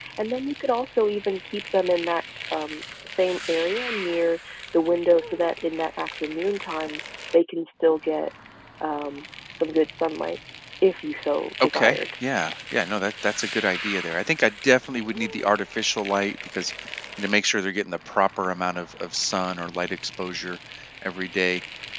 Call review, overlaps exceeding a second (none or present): none